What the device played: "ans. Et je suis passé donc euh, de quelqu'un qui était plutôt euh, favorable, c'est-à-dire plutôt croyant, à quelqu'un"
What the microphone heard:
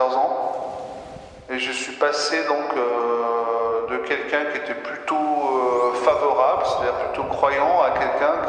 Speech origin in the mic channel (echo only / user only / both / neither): echo only